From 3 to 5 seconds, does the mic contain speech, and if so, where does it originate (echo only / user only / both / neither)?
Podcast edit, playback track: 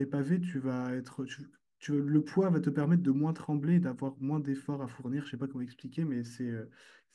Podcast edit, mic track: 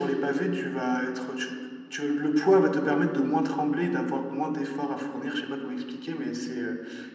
echo only